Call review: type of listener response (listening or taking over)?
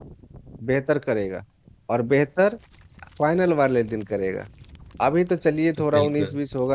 listening